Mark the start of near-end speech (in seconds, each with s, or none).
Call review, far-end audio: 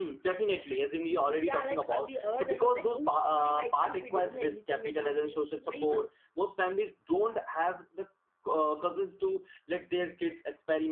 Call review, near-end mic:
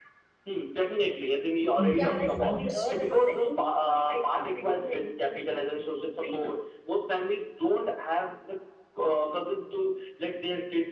1.8 s